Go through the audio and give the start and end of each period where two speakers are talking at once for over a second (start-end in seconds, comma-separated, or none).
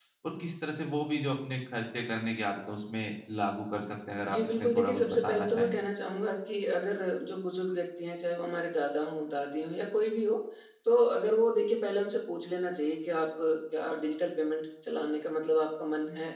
4.3-5.7